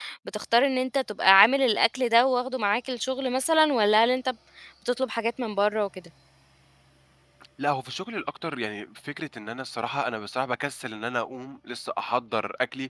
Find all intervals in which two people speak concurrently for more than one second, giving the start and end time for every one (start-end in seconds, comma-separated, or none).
none